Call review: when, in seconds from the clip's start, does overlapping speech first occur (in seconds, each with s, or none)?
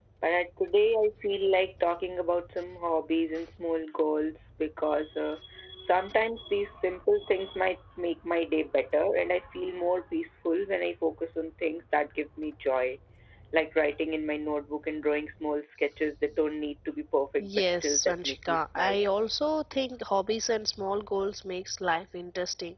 17.4 s